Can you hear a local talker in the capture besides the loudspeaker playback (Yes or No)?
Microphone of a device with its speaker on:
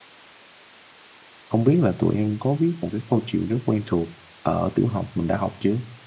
Yes